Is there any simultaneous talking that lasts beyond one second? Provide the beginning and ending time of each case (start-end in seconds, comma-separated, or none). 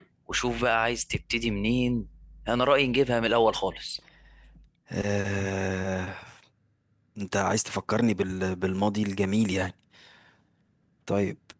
none